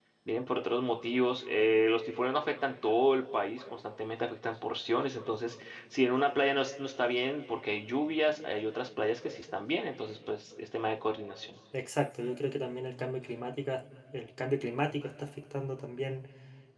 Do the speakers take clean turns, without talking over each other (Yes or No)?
Yes